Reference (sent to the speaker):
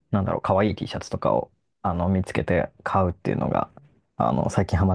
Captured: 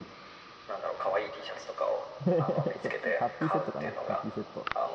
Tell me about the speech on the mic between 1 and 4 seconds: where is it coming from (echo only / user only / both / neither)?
both